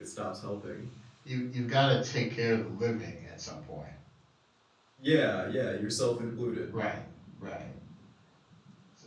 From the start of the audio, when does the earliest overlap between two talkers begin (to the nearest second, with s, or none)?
none